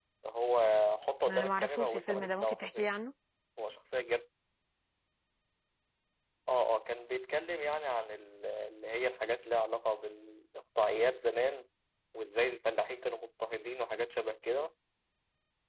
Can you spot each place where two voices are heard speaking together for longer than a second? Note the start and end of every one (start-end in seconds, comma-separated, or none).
1.3-2.9